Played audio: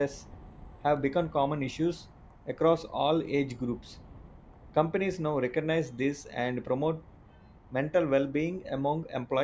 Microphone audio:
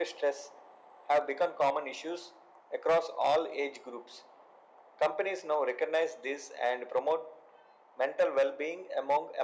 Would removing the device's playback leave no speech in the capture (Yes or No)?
Yes